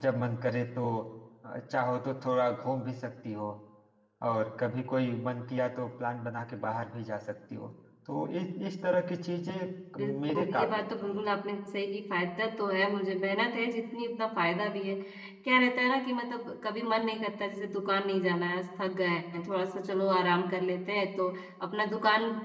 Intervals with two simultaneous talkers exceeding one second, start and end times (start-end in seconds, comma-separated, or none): 10.0-11.2